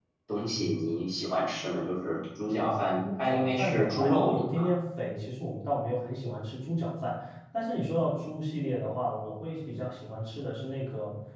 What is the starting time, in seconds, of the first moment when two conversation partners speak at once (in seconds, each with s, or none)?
3.0 s